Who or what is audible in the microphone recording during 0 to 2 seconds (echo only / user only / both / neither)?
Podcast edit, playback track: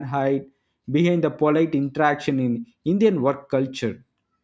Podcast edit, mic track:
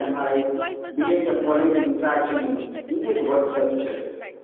both